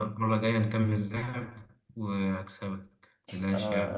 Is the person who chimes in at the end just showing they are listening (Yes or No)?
No